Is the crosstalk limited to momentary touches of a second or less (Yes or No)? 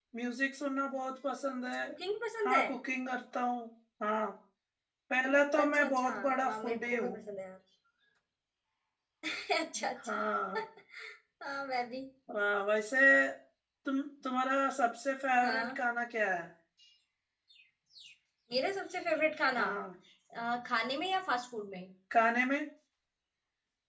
No